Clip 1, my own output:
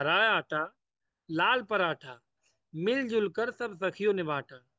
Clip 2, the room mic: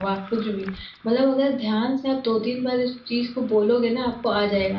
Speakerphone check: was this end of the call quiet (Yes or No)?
No